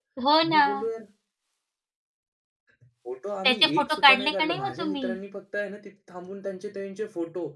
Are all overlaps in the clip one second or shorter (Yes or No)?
No